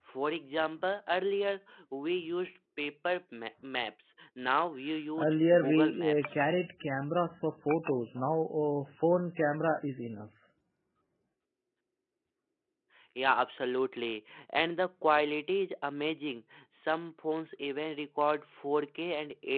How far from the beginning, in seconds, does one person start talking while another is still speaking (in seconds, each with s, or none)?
5.2 s